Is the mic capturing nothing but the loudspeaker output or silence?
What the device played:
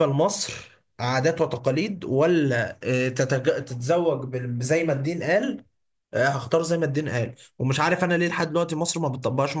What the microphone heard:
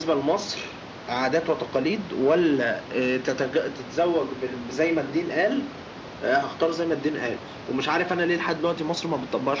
Yes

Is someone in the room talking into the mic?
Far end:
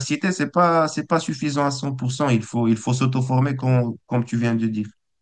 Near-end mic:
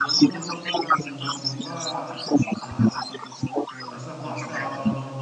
Yes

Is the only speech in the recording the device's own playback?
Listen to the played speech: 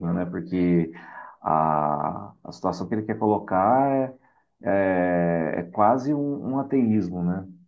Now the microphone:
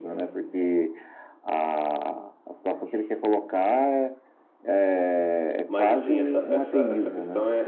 No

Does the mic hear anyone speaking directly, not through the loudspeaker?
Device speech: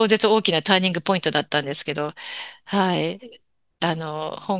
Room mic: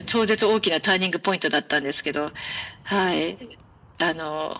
No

